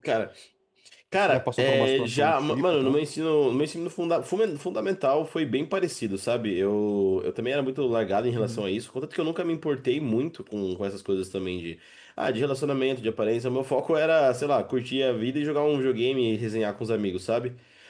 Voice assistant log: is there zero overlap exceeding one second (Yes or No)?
No